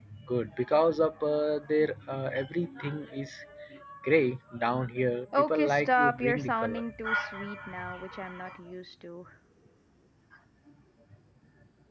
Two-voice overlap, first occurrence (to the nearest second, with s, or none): 5 s